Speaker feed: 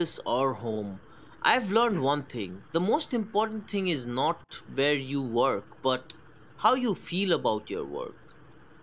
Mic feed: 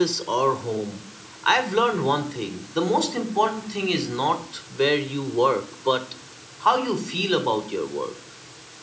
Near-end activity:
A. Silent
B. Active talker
A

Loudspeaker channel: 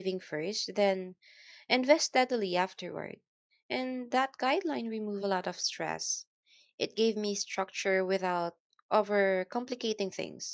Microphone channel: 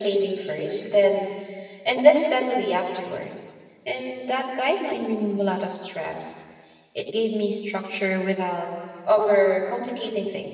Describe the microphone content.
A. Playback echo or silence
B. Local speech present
A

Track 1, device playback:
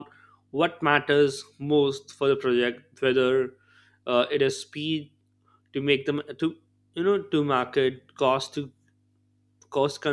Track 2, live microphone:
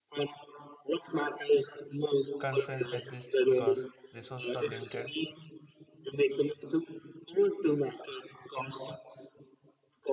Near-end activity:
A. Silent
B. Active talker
B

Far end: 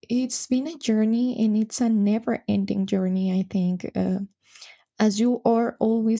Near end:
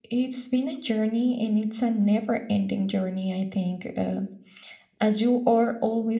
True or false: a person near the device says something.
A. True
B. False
B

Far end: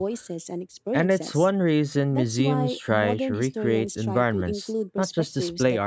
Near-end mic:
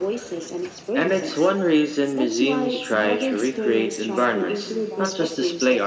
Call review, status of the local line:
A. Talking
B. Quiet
A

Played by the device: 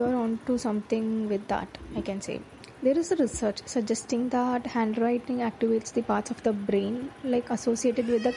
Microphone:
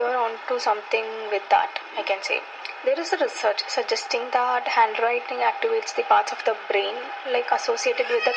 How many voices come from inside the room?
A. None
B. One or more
A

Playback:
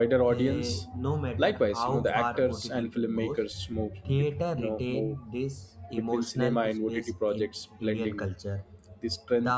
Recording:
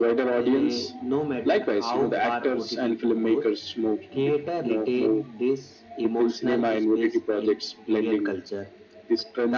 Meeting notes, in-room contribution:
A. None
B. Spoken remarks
A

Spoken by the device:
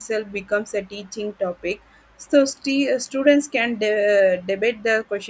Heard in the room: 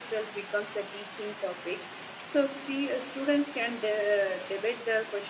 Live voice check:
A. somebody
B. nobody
B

